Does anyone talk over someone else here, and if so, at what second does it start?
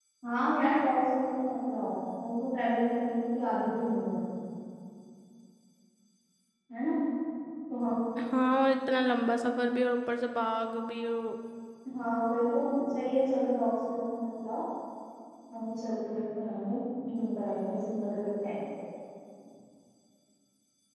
none

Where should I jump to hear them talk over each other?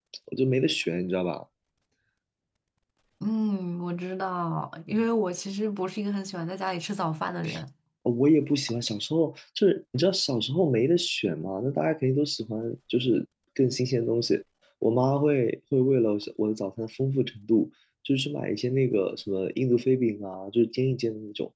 none

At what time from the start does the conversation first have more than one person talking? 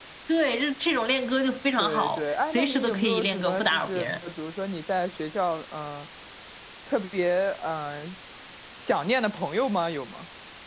1.8 s

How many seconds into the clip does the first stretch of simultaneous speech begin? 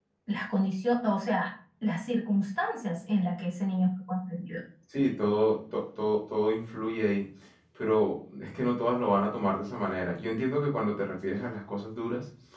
none

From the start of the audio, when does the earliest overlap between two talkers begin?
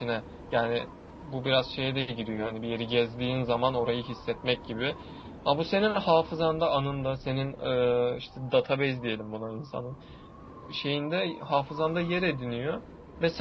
none

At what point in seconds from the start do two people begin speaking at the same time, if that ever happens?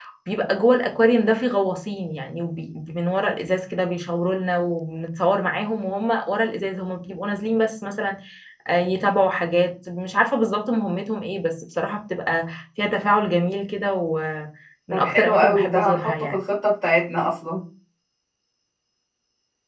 14.9 s

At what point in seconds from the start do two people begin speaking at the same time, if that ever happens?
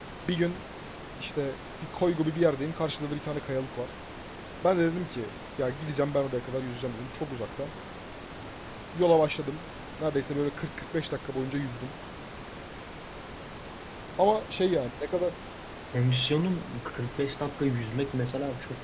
none

